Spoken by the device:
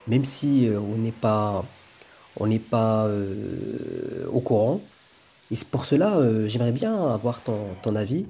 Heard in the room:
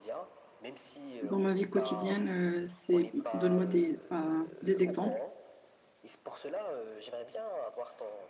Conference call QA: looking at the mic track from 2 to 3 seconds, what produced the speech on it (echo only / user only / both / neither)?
both